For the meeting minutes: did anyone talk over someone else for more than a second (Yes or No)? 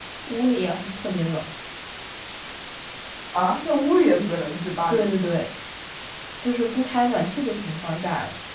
No